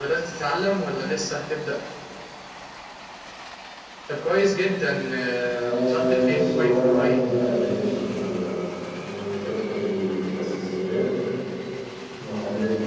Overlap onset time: 5.5 s

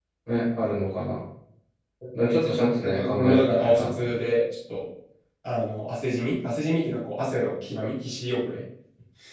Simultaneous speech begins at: 2.2 s

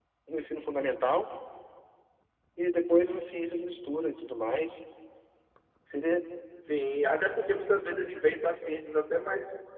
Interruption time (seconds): none

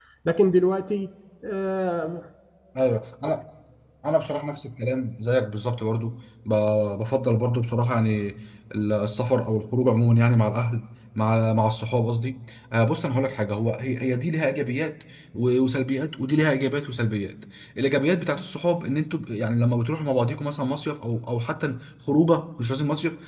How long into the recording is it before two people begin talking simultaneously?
none

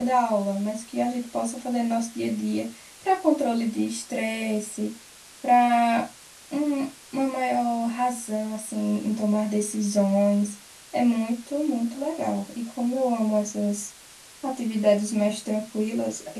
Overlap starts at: none

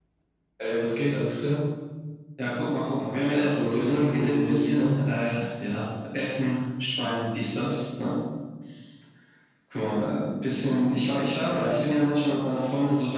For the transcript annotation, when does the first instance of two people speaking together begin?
3.3 s

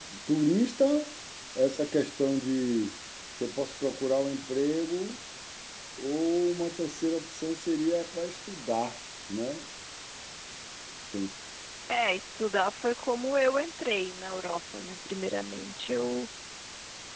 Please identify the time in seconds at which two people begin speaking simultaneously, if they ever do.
none

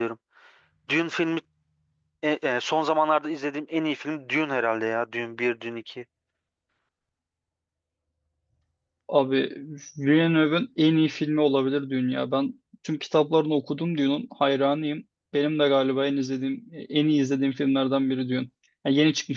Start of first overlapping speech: none

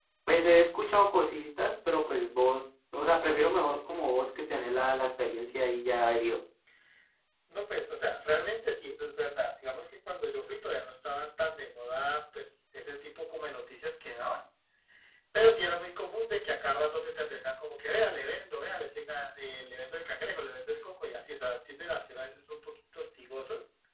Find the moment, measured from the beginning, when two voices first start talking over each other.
none

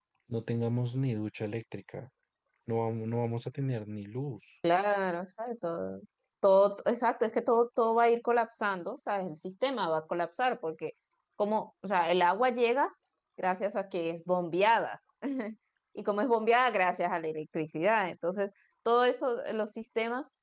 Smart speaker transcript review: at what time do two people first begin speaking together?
none

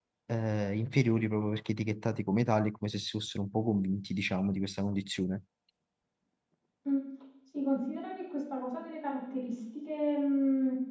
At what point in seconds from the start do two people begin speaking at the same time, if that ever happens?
none

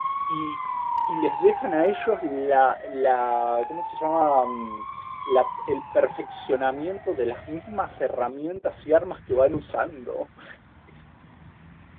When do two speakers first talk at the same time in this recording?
none

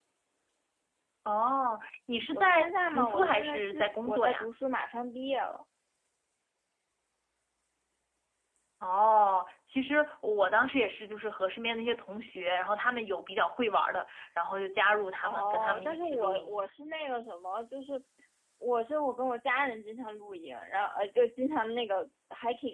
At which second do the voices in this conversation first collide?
2.3 s

